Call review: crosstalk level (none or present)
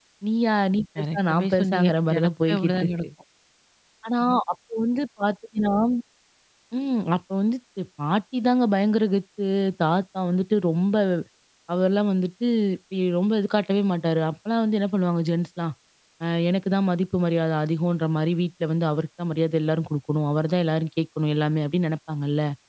present